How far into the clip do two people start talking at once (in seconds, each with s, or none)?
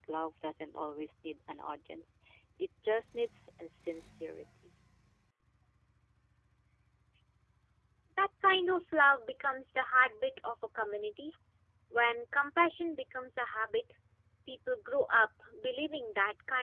none